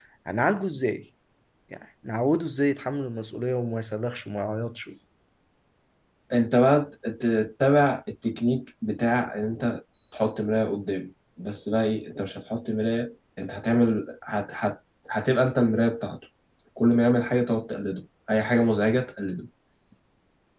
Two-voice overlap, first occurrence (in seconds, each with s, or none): none